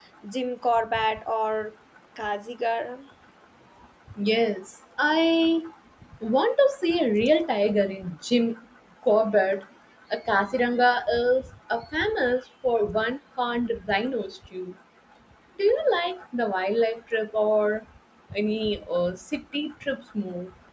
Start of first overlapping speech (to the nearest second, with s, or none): none